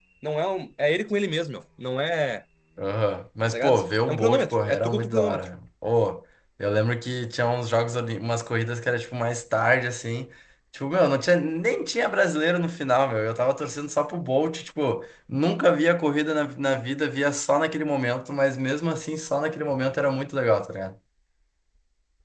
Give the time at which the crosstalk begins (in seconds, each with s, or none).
3.5 s